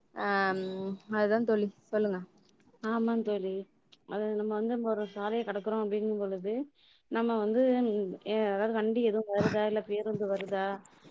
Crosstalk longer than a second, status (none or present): none